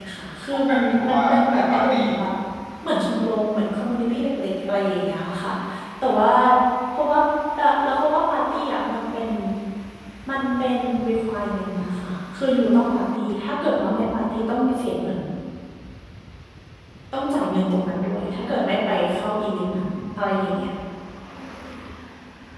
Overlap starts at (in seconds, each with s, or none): 0.5 s